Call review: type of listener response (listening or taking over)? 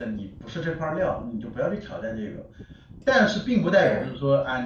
listening